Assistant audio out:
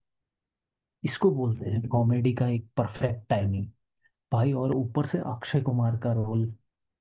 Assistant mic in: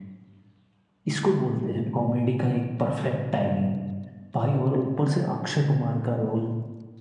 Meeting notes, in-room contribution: none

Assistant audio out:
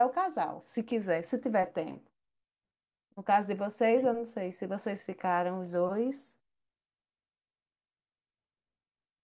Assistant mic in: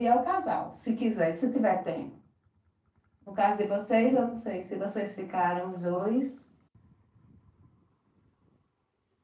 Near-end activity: none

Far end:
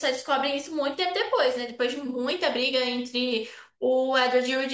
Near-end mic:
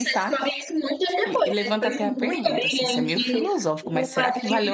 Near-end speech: present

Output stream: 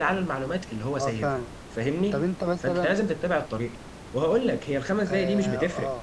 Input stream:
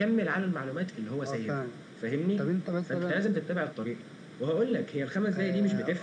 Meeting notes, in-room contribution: none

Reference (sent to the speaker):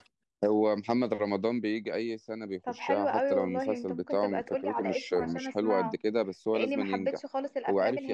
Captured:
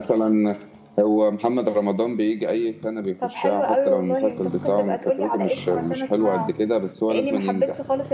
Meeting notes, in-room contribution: none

